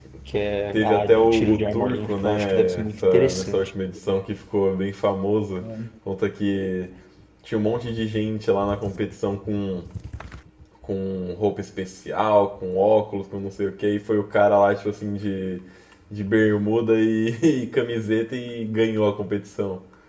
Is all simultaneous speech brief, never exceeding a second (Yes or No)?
No